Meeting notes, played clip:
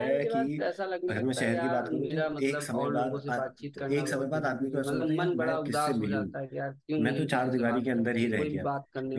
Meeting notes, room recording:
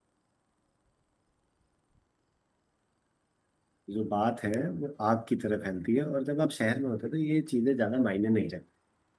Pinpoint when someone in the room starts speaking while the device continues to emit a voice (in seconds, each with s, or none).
3.9 s